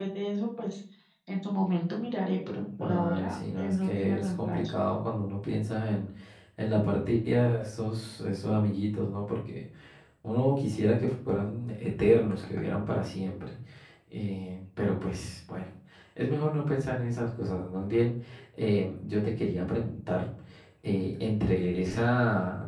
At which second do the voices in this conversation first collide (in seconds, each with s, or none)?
2.8 s